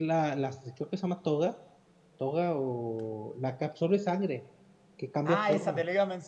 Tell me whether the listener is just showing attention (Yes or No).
No